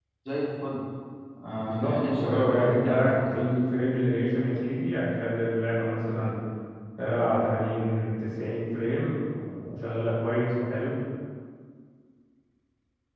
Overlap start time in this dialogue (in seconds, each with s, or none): 1.6 s